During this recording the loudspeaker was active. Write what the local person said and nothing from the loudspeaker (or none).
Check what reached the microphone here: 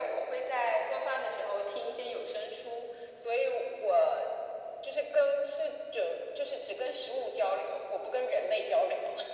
none